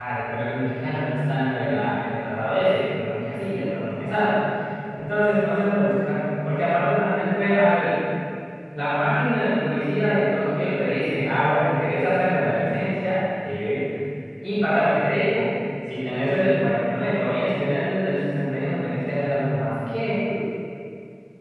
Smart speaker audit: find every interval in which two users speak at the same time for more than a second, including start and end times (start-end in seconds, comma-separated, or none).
none